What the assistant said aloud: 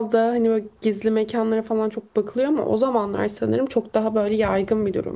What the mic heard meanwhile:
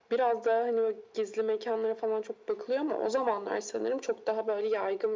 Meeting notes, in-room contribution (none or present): none